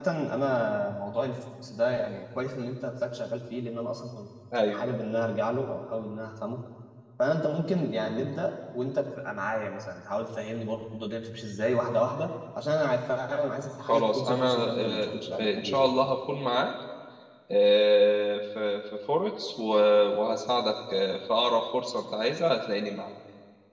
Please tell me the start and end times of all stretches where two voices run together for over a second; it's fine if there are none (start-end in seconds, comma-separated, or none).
13.8-15.9